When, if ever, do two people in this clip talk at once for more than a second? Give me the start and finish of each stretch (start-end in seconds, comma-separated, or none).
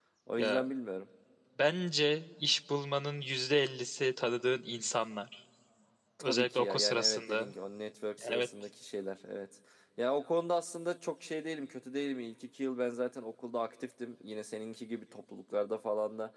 6.2-7.5